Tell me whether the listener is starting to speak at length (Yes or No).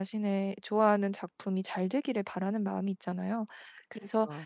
No